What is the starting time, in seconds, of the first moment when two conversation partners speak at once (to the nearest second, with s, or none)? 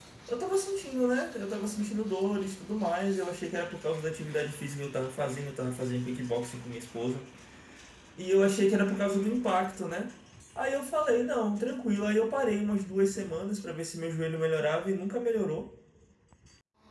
none